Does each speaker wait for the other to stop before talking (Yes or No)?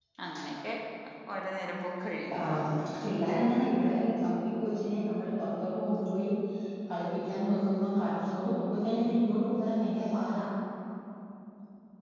Yes